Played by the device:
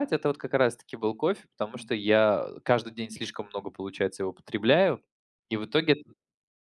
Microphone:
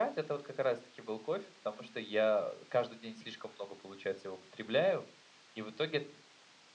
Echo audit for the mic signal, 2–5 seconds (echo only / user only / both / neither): echo only